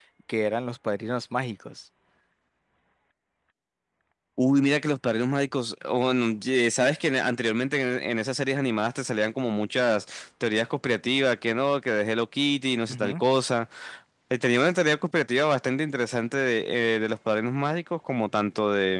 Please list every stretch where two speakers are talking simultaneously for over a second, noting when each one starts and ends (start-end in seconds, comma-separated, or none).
none